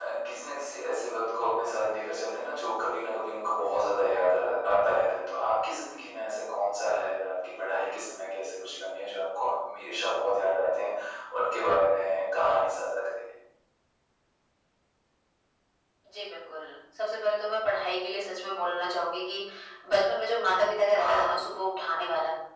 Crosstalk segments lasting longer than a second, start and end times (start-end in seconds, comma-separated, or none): none